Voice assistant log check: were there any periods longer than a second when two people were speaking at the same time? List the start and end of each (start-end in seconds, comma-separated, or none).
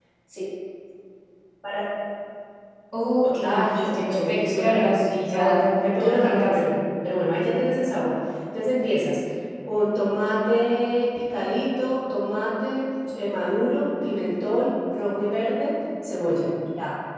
3.2-6.7